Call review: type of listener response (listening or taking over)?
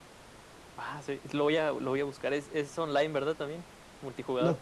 taking over